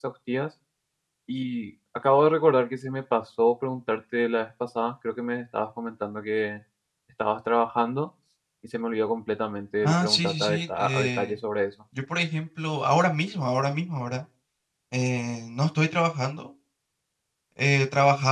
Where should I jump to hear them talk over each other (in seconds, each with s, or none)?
9.8 s